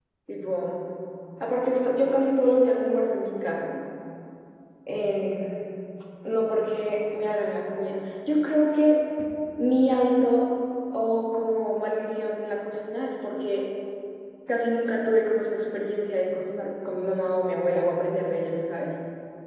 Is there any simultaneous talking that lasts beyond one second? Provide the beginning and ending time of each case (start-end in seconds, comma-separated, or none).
none